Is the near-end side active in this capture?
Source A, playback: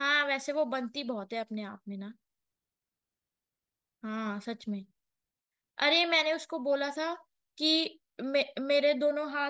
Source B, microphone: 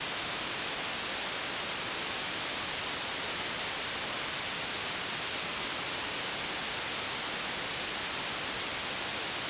No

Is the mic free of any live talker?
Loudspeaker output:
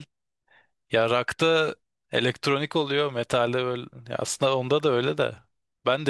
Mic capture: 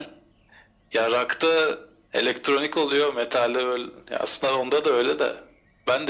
Yes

